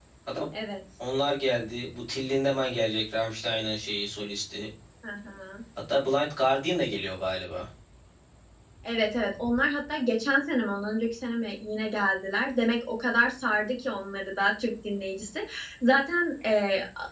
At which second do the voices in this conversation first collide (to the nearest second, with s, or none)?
none